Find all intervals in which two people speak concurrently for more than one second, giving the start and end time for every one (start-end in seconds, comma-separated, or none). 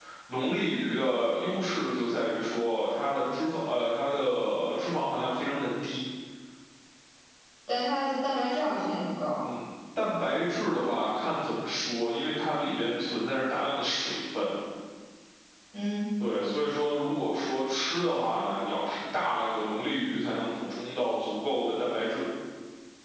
none